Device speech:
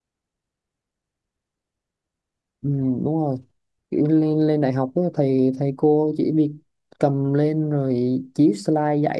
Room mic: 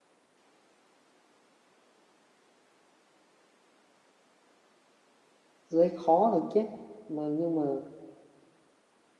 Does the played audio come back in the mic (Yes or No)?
No